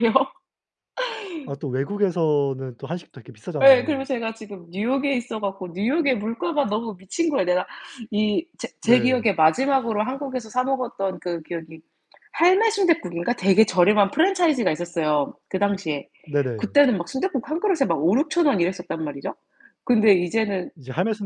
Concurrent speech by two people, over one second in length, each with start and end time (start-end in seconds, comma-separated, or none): none